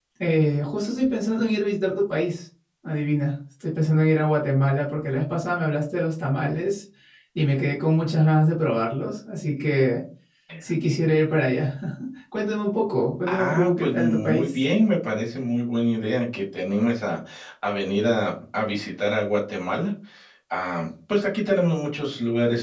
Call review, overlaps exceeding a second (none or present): present